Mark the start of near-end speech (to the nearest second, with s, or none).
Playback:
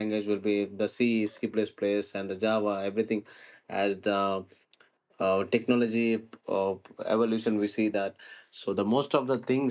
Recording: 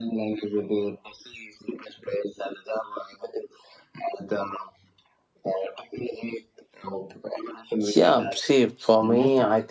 8 s